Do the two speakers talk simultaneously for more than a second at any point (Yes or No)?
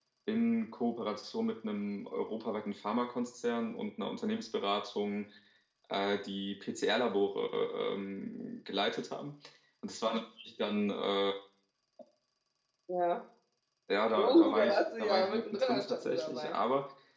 Yes